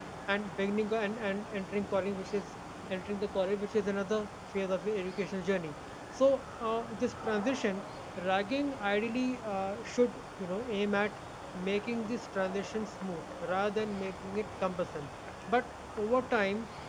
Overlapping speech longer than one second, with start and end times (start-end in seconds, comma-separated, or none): none